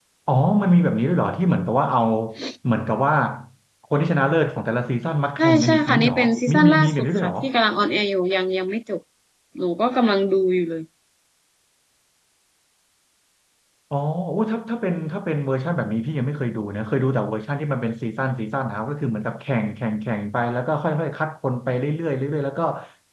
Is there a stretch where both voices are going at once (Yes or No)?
Yes